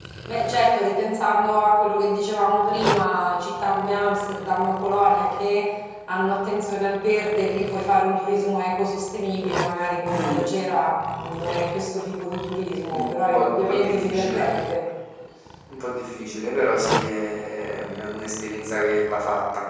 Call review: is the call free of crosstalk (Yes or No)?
No